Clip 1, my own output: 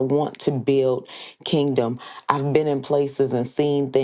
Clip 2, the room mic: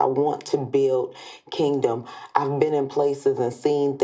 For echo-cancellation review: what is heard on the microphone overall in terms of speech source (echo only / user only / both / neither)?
echo only